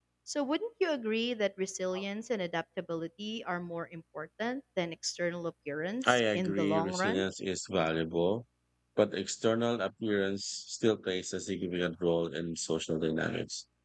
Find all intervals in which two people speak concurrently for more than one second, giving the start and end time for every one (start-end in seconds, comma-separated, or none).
6.0-7.2